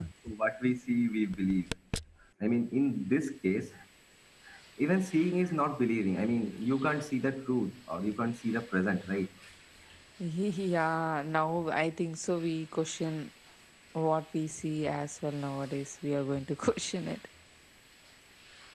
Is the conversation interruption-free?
Yes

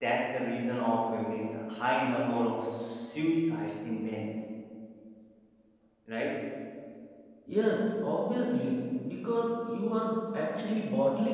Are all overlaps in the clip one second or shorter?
Yes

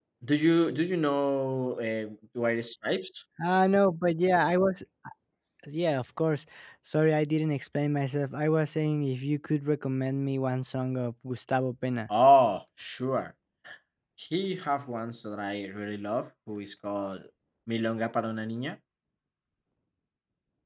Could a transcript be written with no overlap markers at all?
Yes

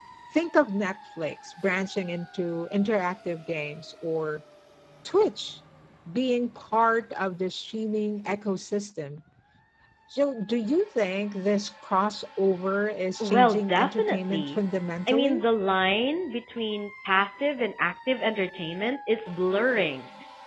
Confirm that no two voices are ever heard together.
No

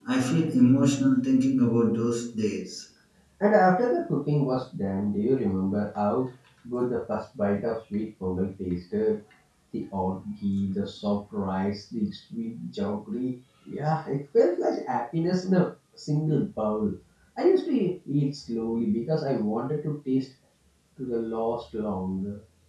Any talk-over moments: No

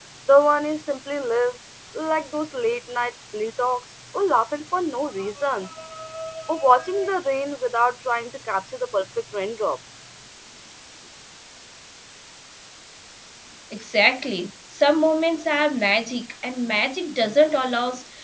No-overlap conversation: Yes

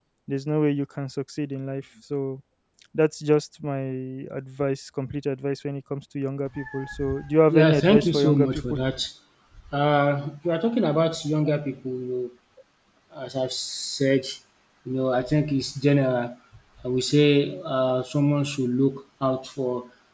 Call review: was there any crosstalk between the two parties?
Yes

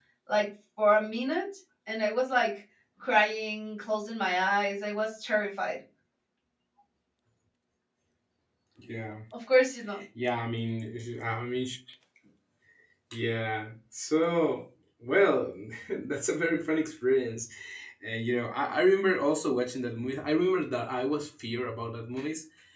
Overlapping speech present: No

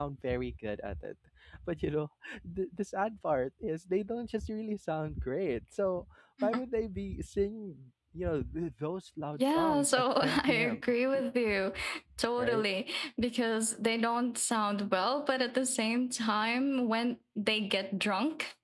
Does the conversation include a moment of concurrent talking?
Yes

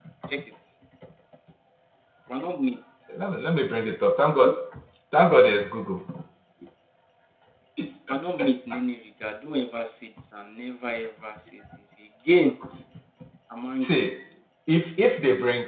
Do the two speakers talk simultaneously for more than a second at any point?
No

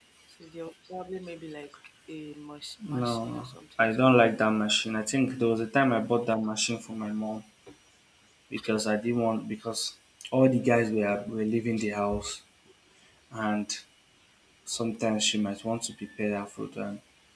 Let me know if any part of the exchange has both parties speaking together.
Yes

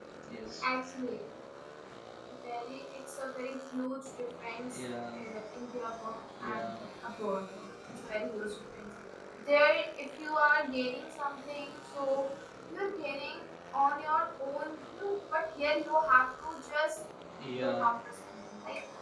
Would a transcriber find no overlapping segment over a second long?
Yes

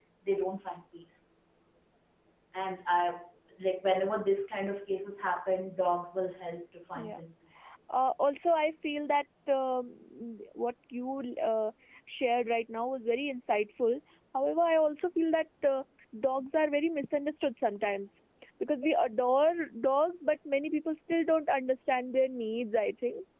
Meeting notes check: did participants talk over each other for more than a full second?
No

